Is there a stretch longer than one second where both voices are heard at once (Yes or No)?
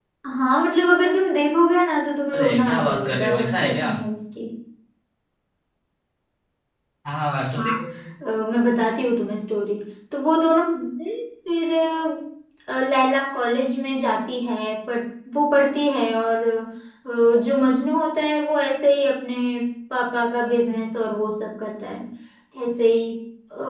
Yes